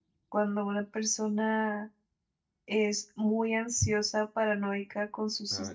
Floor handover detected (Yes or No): No